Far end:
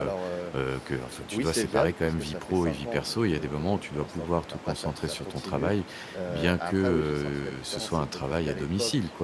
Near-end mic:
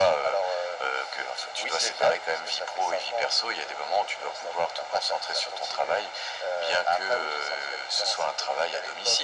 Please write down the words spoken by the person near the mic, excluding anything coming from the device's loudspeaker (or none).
none